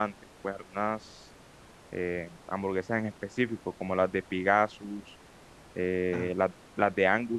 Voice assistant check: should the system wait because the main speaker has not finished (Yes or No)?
Yes